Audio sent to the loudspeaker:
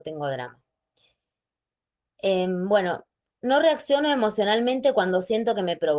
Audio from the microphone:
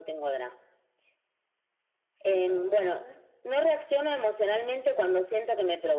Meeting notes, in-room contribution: present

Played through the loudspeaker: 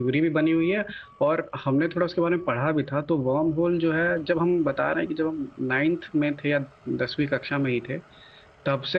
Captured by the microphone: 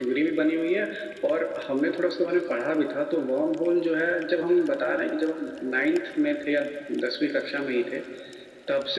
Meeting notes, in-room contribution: none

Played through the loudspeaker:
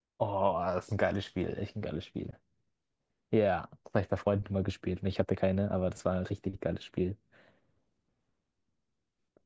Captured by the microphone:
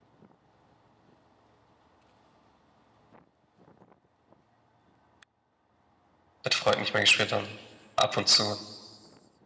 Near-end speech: present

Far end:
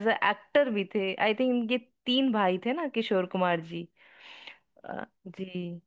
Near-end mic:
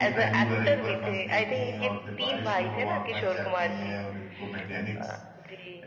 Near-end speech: present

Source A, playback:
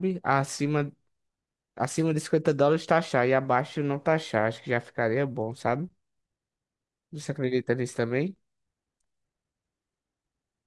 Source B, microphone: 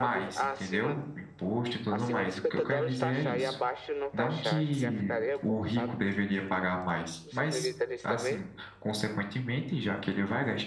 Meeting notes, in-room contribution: present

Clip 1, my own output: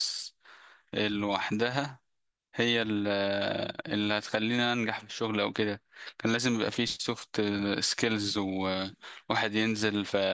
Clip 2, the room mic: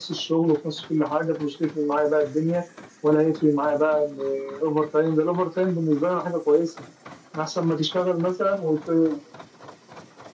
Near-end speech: present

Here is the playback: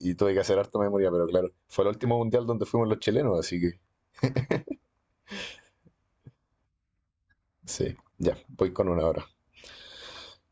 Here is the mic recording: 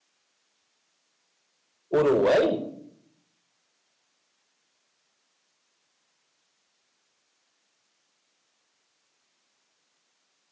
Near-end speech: present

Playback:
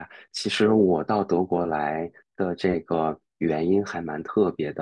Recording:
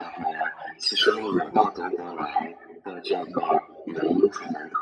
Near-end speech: none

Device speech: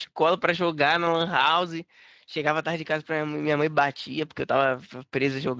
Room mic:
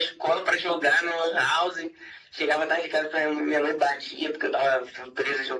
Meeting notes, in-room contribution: none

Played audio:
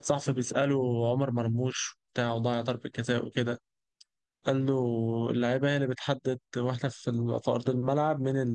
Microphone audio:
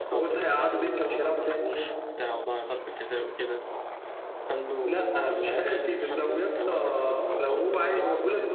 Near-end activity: present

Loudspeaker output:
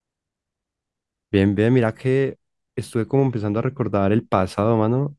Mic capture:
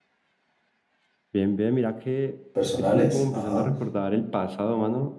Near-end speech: present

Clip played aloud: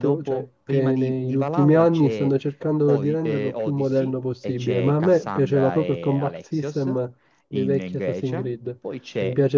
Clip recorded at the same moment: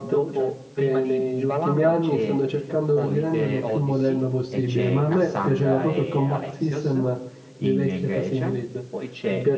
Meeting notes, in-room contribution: none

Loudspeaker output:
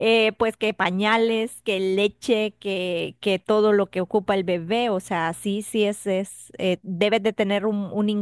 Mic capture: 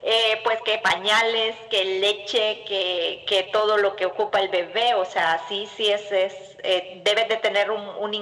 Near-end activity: none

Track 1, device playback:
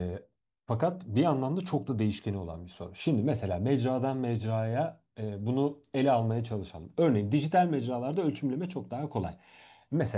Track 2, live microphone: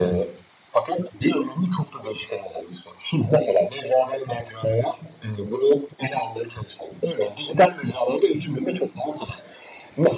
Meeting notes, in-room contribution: none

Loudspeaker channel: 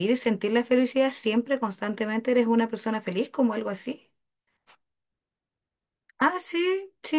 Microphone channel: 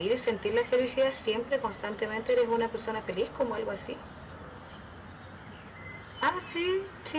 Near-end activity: none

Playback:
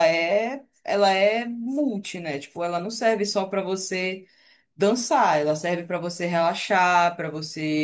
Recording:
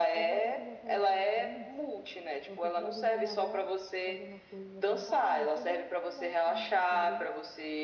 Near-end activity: present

